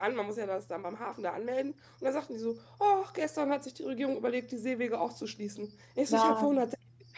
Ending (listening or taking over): listening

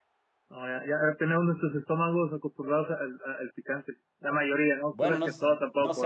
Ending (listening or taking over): taking over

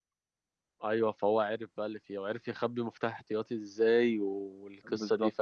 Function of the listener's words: taking over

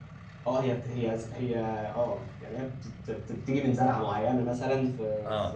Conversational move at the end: taking over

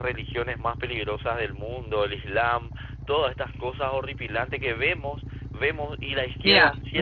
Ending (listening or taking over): taking over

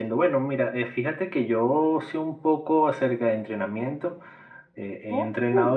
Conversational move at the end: listening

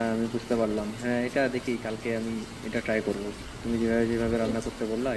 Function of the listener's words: listening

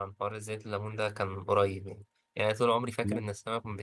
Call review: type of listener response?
listening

